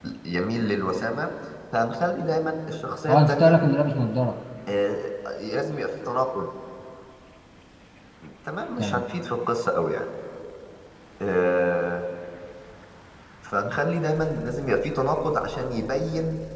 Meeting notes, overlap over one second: none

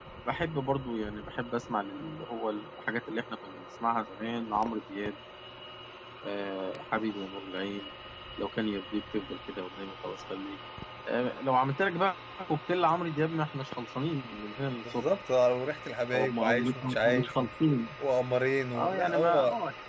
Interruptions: present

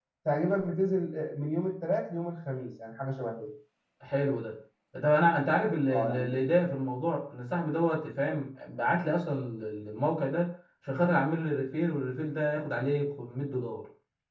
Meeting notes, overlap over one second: none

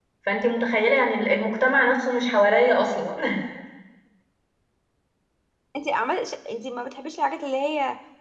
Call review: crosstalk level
none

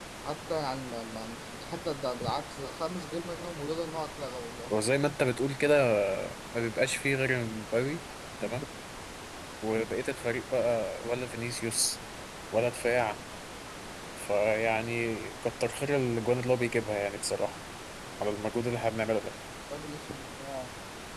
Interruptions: none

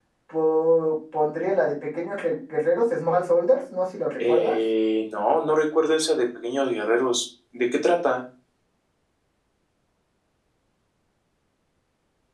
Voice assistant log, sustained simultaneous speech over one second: none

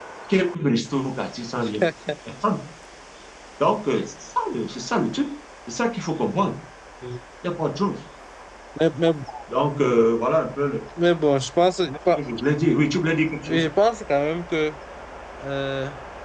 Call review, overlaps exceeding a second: none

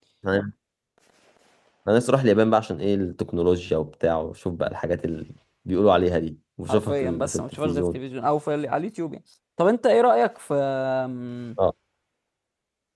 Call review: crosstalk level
present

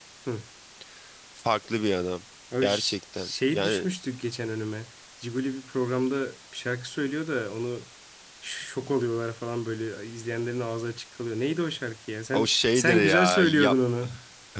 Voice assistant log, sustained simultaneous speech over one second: present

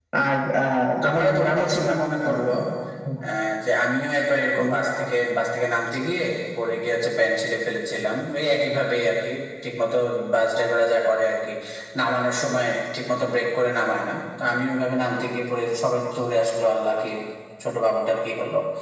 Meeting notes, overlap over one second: present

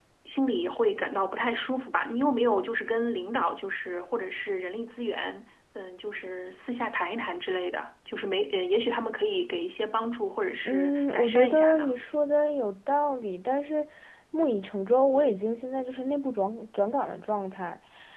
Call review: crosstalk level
present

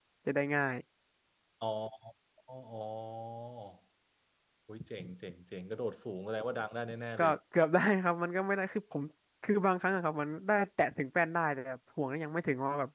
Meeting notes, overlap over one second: none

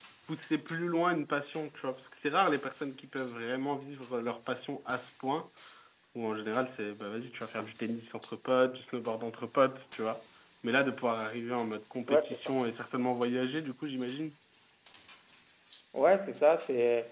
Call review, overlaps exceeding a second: none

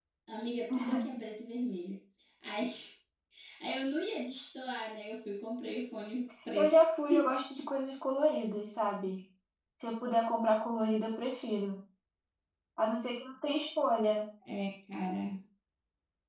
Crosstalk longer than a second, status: none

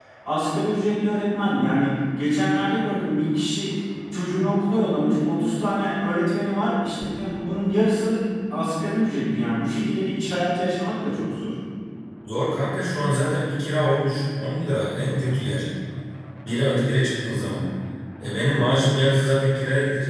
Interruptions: none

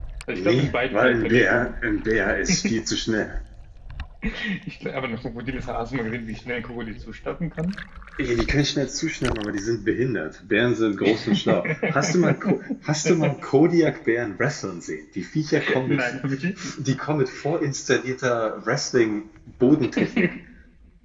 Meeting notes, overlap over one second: present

